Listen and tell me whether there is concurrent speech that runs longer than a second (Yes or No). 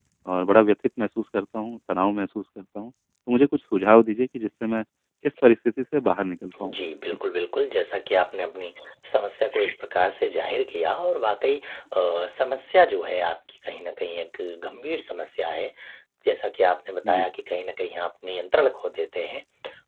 No